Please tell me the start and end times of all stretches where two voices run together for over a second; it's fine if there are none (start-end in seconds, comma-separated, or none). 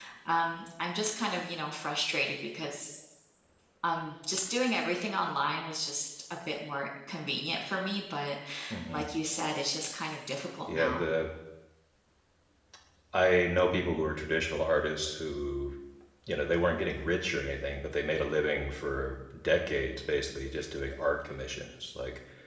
none